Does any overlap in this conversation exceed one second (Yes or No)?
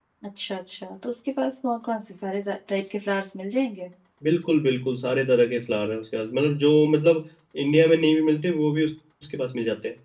No